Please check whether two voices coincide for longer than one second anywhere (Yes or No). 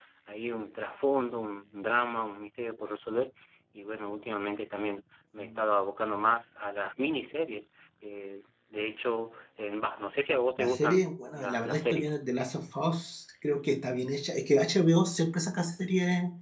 Yes